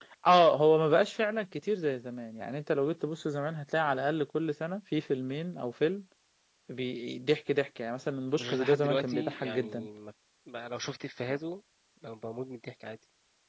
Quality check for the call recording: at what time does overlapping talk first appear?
8.4 s

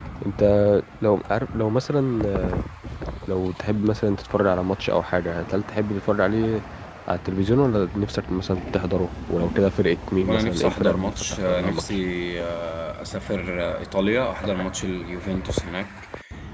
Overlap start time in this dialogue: 10.2 s

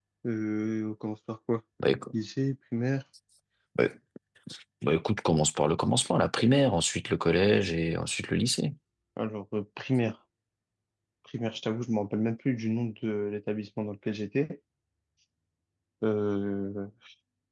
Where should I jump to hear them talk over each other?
none

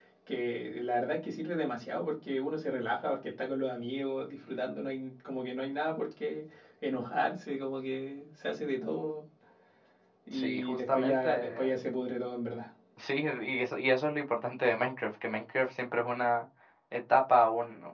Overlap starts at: 10.3 s

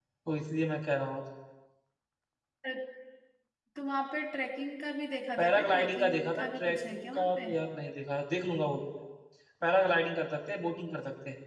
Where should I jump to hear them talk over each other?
5.4 s

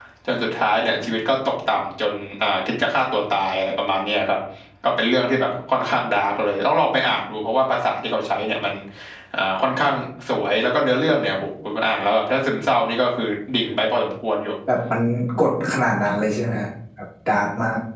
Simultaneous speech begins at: none

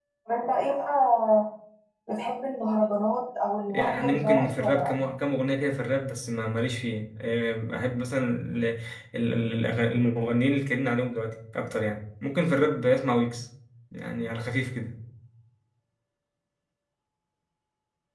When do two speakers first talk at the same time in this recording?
3.7 s

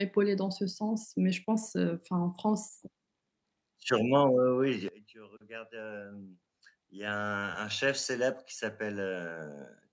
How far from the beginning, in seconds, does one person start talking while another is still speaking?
none

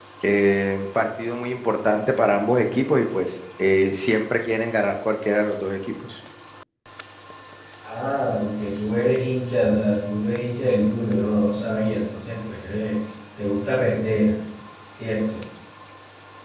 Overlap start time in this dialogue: none

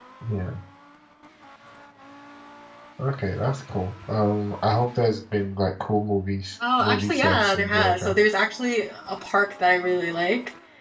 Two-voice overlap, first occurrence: 6.6 s

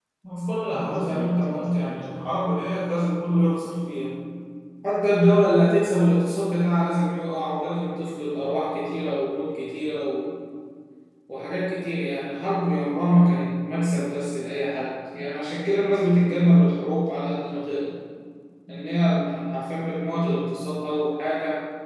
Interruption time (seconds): 0.7 s

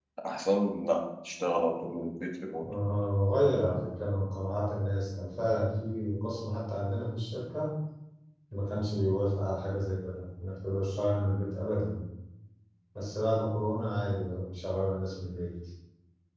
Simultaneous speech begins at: none

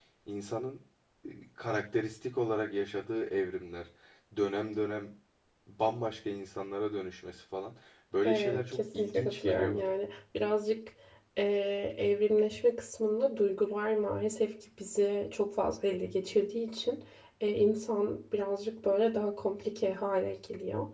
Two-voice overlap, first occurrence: 8.2 s

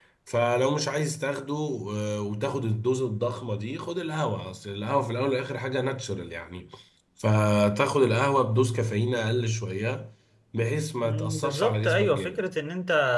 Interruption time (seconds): 11.0 s

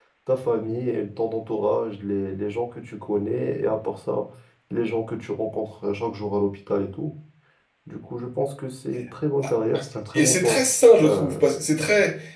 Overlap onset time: 10.1 s

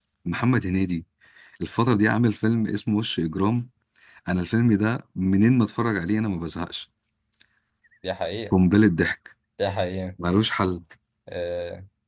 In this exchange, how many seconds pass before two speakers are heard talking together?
none

